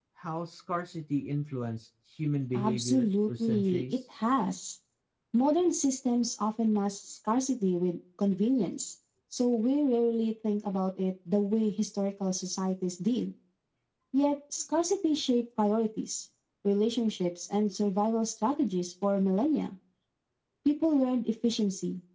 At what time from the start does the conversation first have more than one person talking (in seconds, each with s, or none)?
2.5 s